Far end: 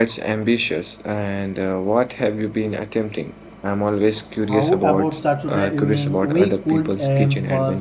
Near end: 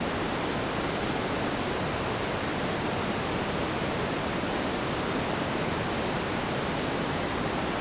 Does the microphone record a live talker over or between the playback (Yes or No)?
No